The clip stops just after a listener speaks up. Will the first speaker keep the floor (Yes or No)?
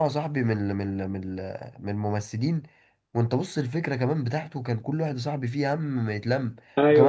No